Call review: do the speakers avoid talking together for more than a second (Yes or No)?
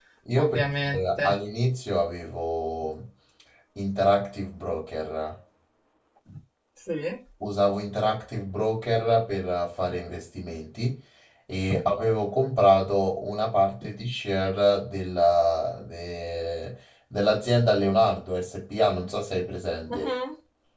Yes